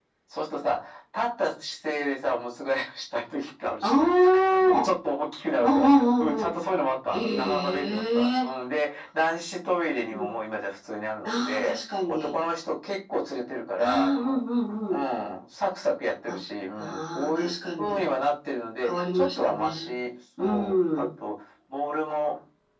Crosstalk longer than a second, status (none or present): present